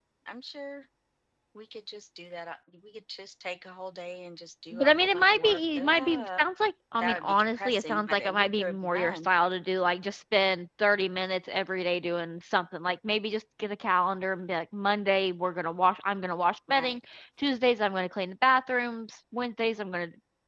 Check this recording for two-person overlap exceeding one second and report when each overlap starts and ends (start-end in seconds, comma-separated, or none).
4.7-6.4, 7.0-9.3